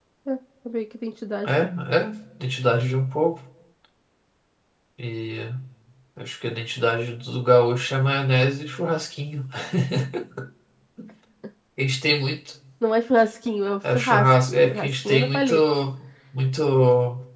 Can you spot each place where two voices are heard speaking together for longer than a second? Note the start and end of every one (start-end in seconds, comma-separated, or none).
13.9-15.5